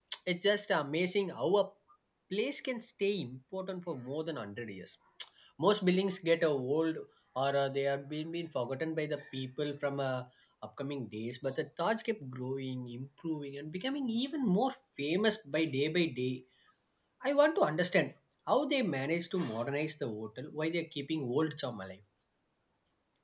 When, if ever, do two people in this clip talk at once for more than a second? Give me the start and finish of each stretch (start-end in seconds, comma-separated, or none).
none